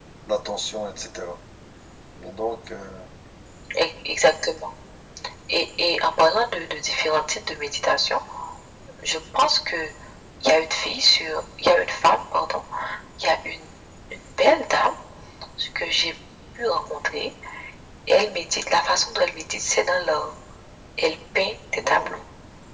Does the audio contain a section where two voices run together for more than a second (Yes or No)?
No